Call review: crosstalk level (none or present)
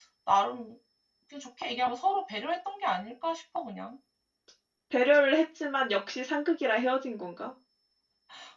none